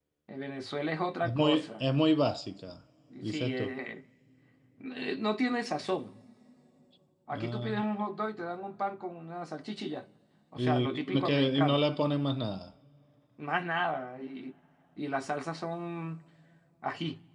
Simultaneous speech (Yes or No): Yes